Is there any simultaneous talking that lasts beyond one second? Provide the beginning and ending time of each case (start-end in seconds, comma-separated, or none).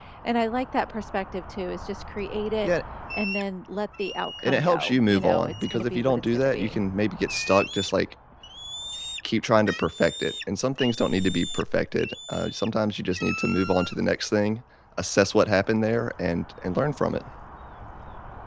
4.4-6.8